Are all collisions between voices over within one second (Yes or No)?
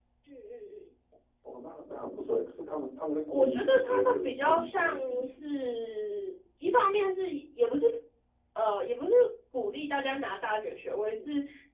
No